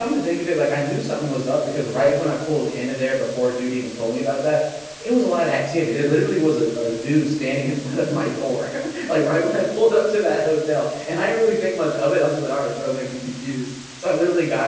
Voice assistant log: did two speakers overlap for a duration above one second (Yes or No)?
No